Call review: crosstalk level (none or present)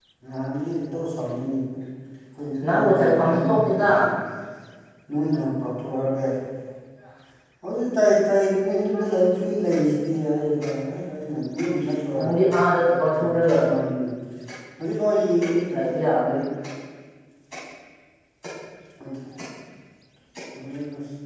present